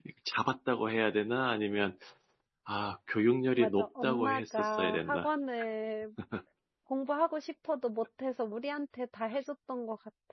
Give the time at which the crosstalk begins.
4 s

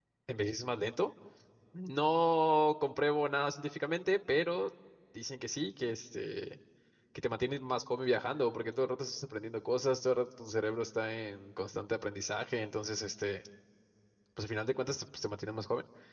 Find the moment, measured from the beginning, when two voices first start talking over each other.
none

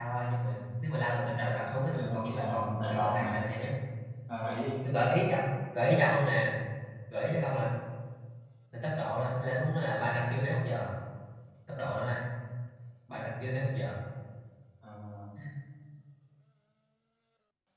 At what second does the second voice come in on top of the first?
2 s

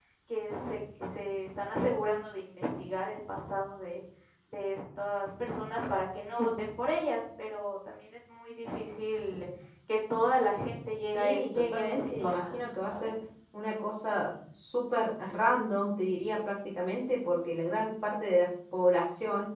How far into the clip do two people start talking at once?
11 s

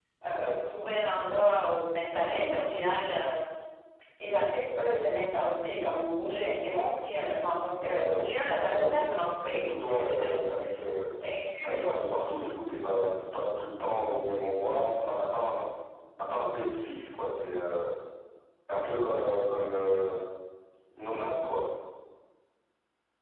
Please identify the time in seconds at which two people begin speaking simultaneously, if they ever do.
8 s

